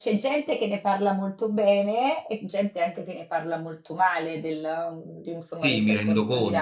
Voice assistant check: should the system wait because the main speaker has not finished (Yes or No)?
No